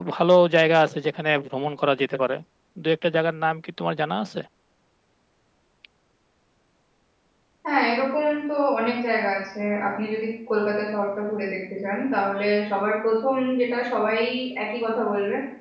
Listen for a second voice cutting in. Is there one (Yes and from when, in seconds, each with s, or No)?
No